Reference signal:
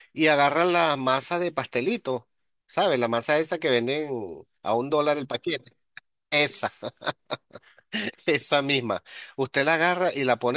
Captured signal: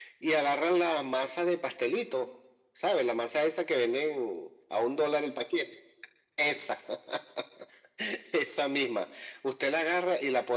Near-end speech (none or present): none